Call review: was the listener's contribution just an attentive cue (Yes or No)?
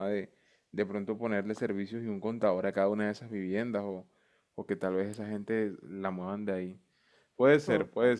Yes